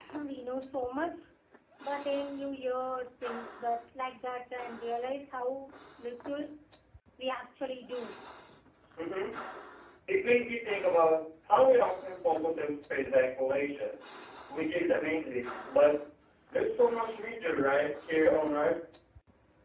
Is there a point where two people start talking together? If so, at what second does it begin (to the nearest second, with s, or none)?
none